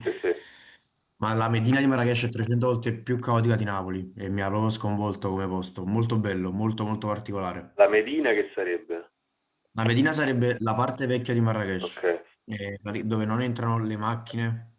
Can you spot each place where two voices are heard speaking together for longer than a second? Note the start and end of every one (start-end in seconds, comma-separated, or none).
none